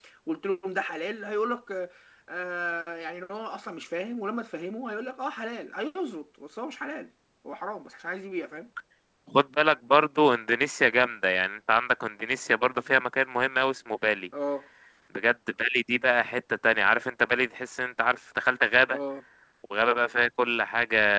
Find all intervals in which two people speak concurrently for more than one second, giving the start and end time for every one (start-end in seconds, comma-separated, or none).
none